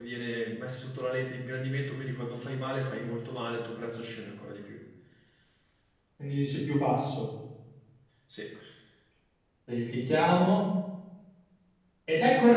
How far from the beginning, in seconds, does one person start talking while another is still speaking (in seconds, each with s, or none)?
none